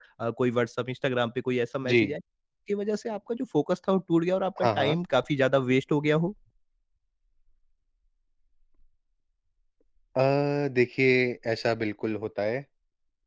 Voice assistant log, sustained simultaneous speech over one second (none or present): none